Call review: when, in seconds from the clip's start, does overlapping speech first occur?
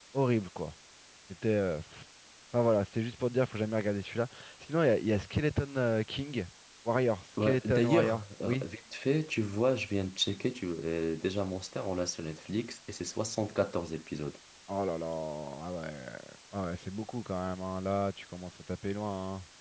7 s

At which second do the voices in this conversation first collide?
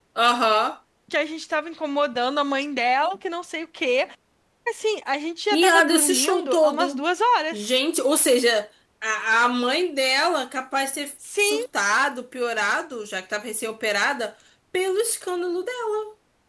6 s

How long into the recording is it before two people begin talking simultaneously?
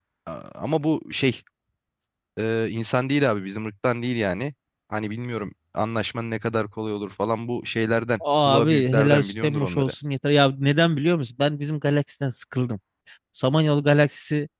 8 s

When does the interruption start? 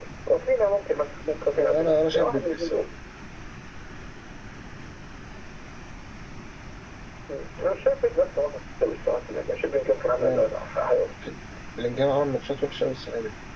2 s

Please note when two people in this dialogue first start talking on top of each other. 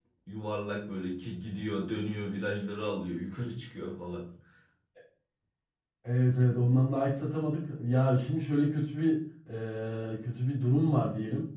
none

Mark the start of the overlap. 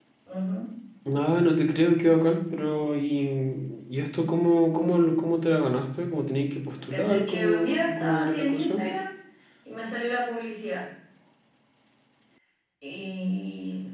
7 s

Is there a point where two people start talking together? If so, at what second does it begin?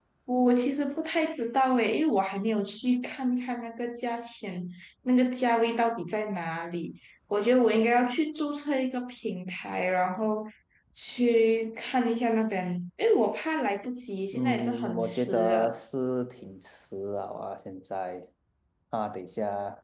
14 s

